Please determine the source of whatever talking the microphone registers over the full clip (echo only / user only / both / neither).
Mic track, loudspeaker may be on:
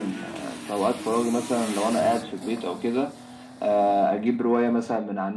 echo only